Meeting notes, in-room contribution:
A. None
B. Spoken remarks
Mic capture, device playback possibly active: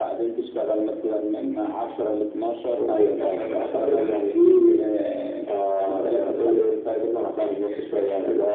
B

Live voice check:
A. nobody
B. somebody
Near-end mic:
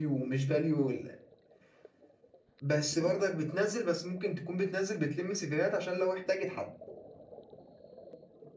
A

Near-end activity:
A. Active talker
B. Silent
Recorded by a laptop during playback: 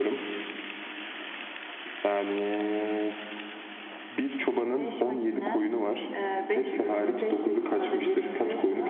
B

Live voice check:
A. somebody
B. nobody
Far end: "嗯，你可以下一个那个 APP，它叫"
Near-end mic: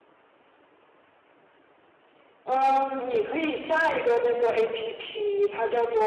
B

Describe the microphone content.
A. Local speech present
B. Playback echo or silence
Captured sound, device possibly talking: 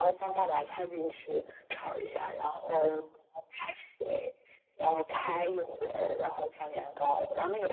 B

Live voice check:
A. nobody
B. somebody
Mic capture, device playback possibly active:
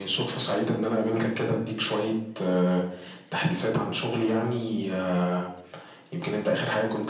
A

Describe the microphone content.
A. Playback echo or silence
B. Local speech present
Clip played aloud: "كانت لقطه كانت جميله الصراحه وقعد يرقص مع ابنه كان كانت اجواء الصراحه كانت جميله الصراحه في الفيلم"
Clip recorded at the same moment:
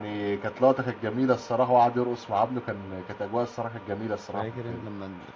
B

